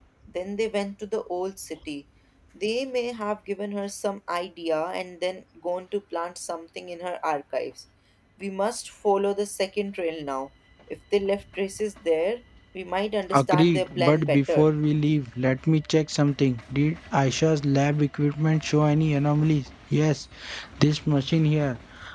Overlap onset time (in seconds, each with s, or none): 13.3 s